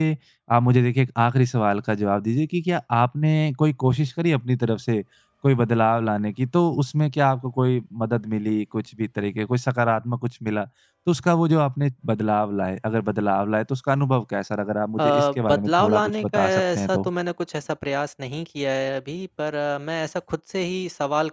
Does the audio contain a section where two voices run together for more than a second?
Yes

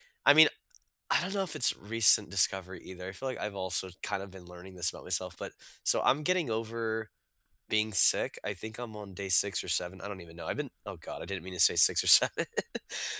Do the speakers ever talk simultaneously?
No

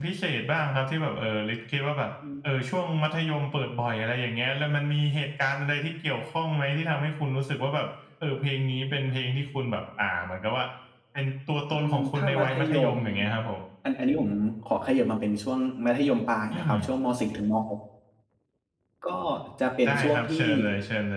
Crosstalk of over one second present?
Yes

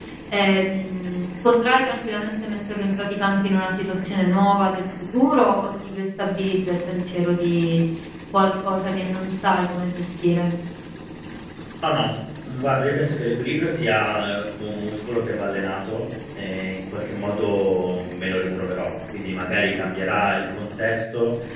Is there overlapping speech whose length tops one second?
No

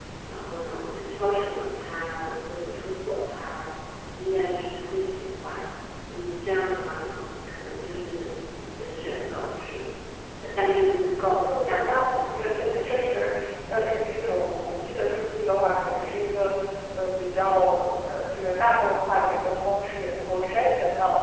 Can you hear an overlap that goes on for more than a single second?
Yes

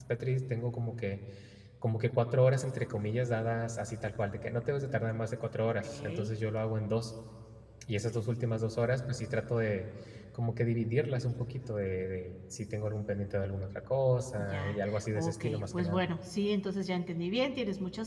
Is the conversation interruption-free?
No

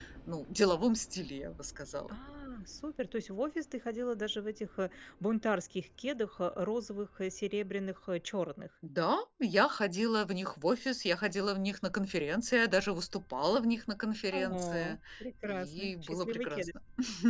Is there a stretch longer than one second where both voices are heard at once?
Yes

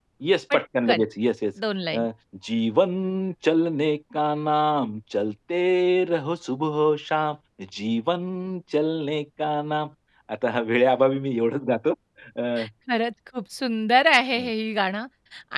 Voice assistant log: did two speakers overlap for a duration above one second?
No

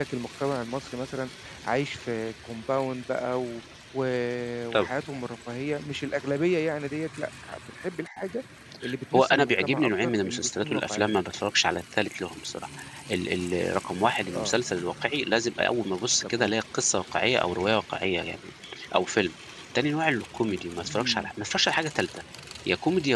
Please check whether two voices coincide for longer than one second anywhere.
Yes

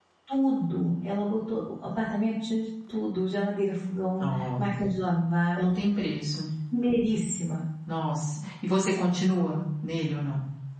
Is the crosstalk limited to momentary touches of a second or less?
Yes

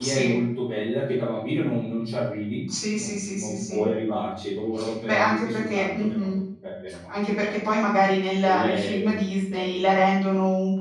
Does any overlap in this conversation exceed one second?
Yes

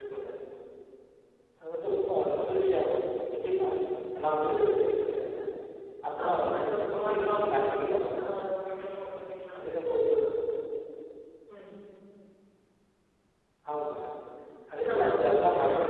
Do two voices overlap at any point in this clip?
Yes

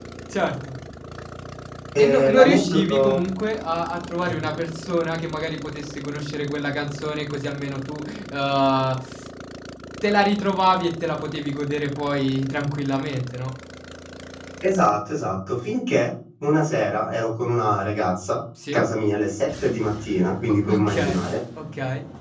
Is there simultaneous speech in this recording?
Yes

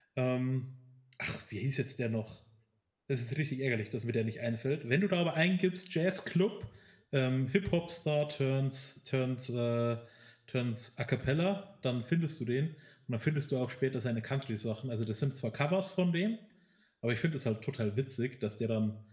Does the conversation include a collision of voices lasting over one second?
No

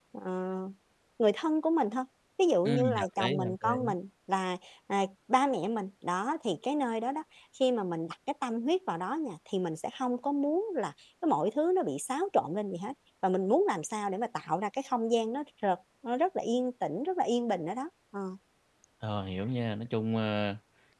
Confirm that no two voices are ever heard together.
No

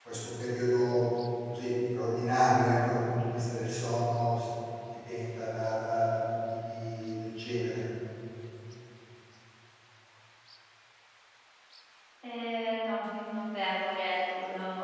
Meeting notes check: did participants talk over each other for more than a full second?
No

